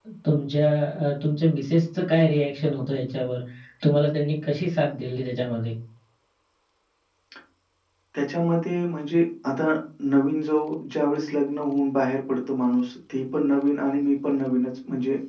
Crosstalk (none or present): none